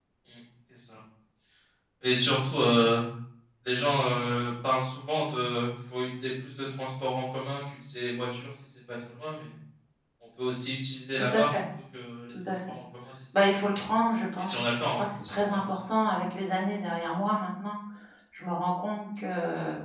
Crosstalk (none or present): present